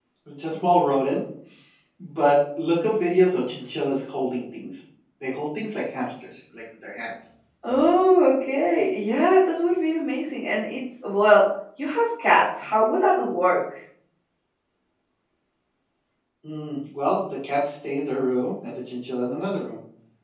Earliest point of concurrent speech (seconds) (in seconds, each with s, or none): none